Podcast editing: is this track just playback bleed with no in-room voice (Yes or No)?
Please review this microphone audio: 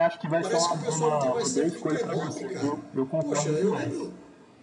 No